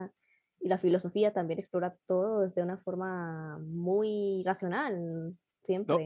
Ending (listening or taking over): taking over